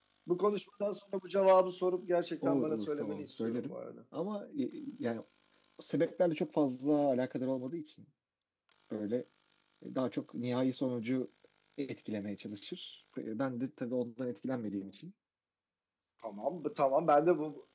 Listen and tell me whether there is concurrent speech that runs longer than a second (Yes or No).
Yes